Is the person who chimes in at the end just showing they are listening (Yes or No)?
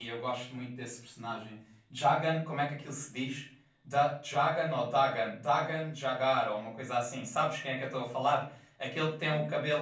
Yes